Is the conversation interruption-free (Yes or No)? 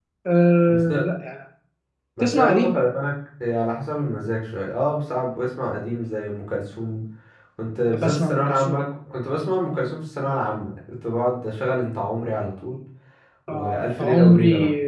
No